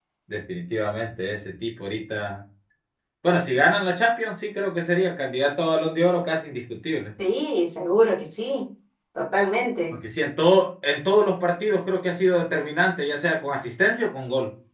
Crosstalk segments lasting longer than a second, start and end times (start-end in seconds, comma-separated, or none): none